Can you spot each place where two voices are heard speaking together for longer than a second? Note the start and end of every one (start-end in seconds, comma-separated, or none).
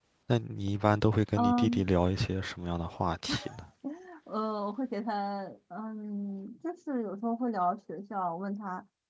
none